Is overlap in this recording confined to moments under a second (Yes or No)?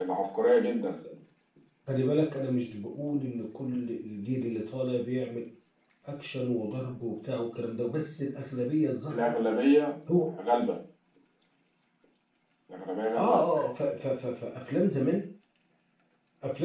Yes